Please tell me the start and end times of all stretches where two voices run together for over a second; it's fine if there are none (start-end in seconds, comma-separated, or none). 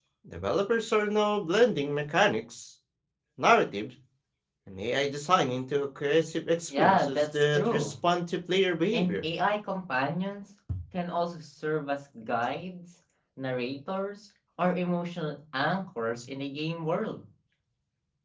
6.7-7.9